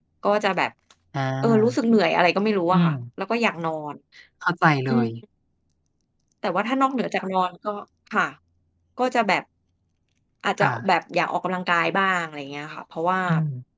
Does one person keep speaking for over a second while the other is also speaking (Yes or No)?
No